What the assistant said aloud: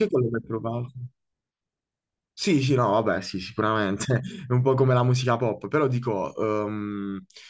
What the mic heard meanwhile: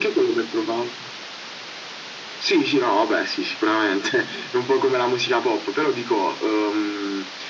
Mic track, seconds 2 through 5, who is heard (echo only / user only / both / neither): echo only